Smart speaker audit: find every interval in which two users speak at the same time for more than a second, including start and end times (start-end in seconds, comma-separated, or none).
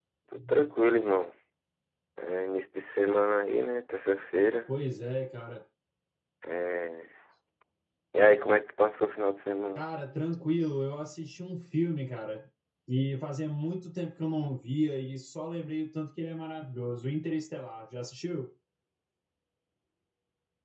none